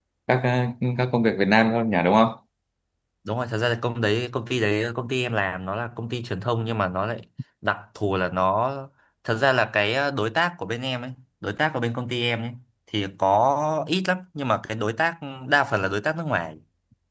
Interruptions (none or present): none